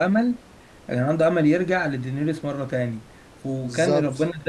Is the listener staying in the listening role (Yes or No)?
Yes